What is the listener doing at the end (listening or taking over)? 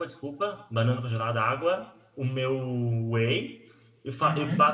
listening